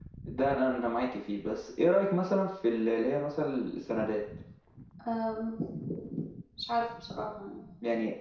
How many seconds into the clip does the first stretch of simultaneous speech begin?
none

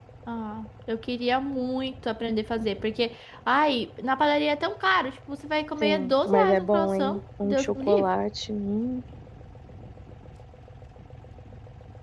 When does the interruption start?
5.8 s

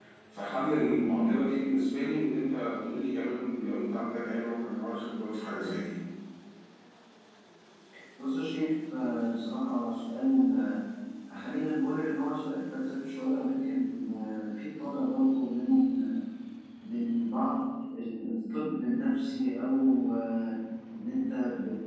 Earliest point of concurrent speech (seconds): none

